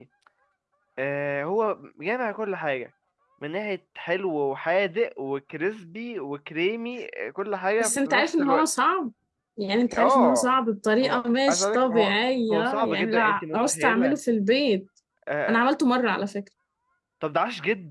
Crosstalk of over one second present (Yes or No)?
Yes